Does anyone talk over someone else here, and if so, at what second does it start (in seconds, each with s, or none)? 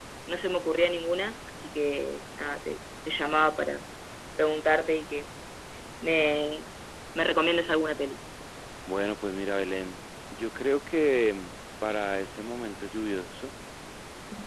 none